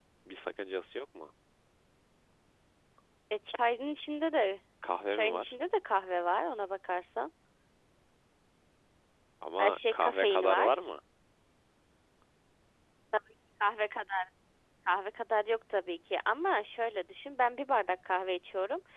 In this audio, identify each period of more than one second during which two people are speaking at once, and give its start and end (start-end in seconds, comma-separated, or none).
9.6-10.9